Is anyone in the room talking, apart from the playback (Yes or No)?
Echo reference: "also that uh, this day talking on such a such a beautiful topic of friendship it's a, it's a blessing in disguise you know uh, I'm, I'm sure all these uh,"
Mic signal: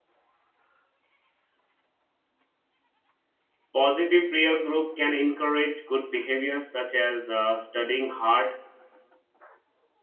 Yes